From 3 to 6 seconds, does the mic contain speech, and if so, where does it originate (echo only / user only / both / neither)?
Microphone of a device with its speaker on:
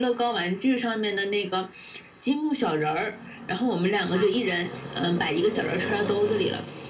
echo only